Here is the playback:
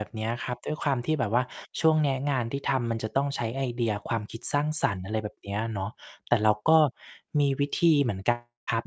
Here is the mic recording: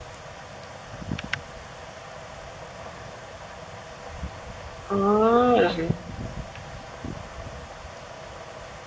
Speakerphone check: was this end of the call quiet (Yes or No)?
No